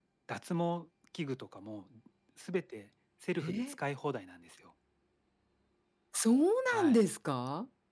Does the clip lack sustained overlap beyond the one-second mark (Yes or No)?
Yes